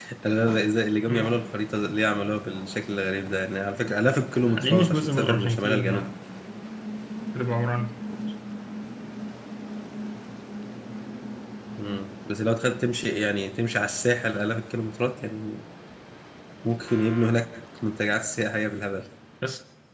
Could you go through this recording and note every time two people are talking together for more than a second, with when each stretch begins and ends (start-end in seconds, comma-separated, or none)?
4.6-6.1